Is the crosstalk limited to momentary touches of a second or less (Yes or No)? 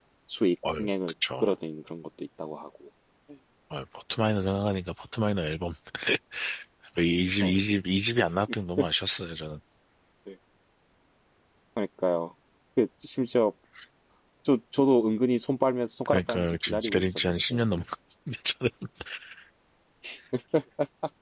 No